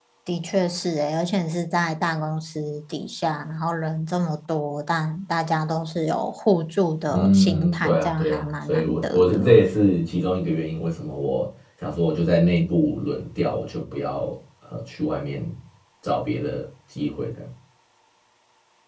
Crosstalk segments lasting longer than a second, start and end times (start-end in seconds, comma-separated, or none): 7.1-9.6